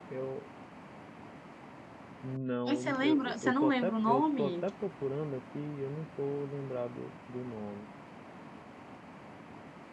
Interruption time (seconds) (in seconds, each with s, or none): 2.7 s